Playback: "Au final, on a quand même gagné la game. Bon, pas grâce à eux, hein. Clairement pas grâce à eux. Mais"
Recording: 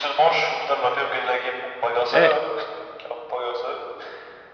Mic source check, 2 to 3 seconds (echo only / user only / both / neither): both